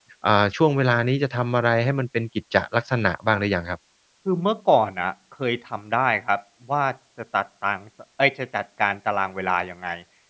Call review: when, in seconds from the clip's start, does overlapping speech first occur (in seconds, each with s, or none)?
none